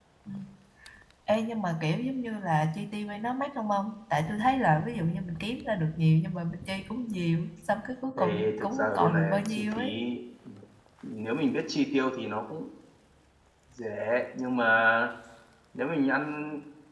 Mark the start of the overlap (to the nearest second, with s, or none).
8 s